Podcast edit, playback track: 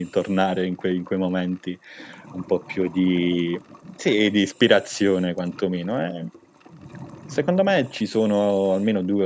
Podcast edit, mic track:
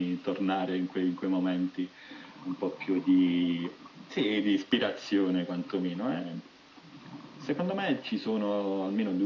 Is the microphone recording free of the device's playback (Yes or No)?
No